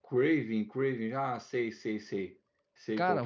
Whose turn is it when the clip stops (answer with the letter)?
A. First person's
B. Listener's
B